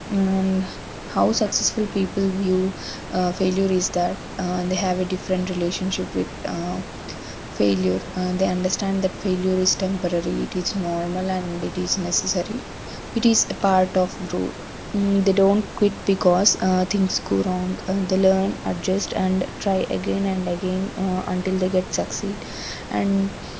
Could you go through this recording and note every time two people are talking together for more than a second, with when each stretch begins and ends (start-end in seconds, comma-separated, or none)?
none